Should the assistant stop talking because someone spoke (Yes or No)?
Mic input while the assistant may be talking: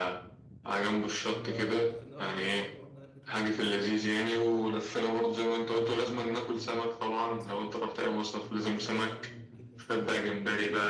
Yes